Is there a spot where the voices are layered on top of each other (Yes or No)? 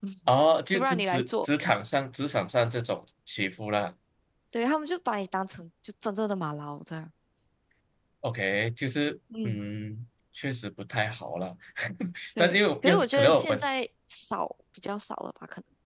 Yes